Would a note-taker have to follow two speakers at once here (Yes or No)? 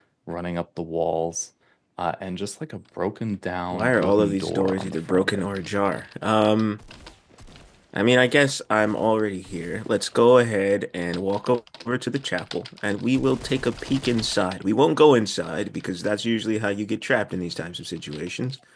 Yes